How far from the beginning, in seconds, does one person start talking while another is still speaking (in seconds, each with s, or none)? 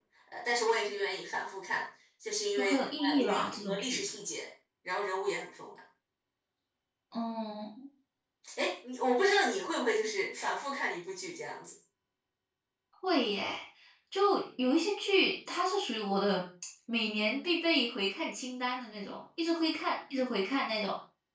2.6 s